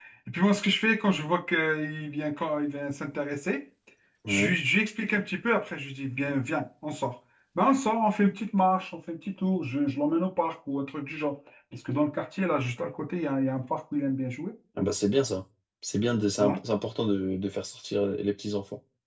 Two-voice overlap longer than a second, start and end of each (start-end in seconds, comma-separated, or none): none